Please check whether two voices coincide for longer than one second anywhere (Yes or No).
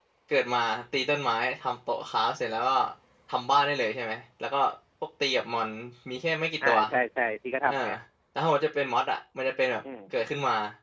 No